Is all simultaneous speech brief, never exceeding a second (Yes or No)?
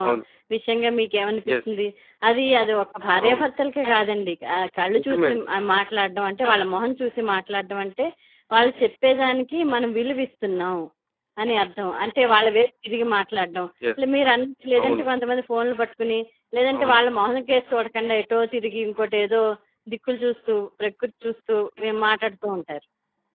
Yes